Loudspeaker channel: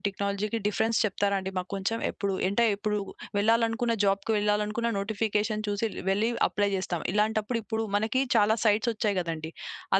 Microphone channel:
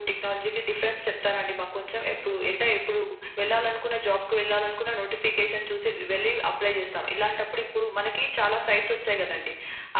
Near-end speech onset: none

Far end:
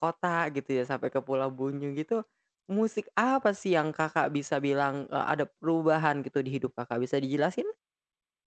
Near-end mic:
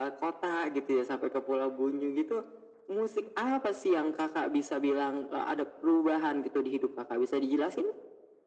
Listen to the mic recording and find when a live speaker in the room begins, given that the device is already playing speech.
none

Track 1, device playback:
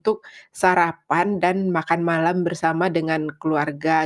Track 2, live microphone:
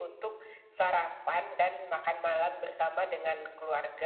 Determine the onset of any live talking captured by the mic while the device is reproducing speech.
none

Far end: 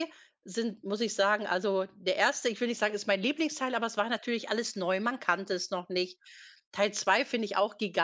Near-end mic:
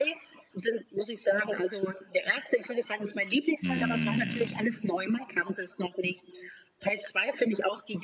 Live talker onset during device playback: 3.6 s

